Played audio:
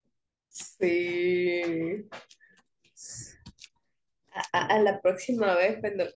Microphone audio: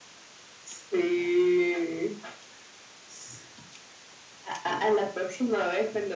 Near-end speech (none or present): none